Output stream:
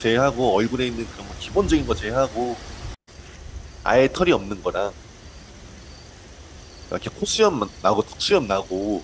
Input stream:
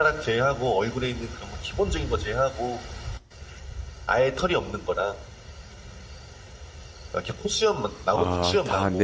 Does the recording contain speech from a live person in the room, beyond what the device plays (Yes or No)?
Yes